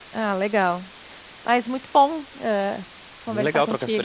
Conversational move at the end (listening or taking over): taking over